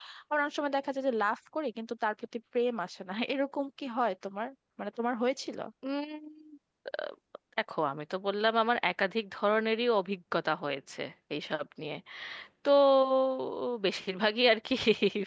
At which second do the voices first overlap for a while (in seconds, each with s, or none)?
none